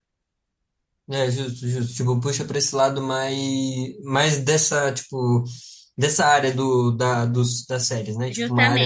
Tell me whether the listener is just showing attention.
No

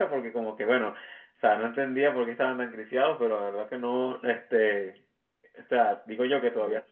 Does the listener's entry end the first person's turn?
No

